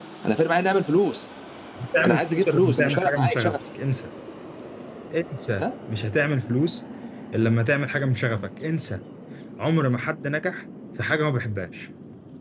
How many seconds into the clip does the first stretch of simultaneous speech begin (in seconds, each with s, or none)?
2.0 s